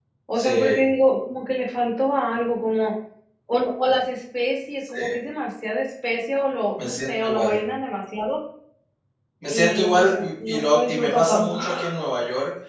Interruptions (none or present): present